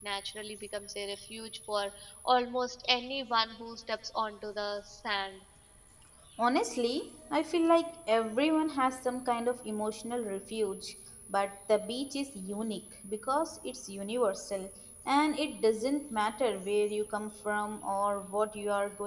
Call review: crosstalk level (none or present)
none